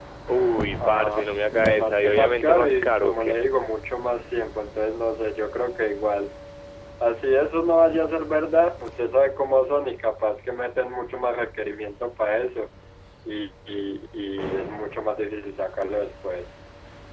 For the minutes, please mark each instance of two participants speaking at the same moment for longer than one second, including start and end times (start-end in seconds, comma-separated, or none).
0.8-3.4